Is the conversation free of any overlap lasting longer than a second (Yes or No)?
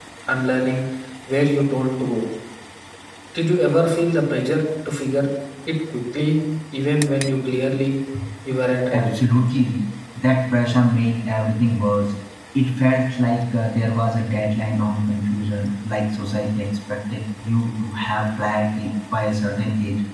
Yes